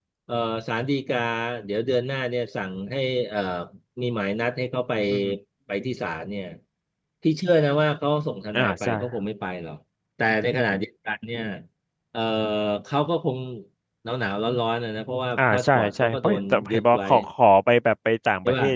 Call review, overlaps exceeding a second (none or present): present